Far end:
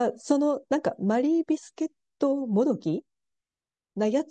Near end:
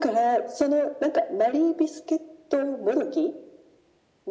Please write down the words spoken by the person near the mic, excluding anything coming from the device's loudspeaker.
none

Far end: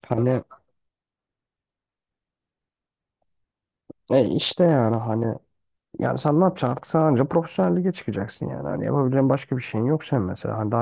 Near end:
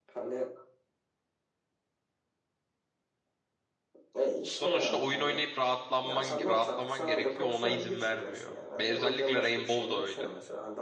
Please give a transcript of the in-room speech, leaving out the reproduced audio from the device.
Sonuçta oyun oynayıp rahatlanman rahatlaman gerekiyor. Ona izin vermiyor. Ve özellikle Rainbow da öyle.

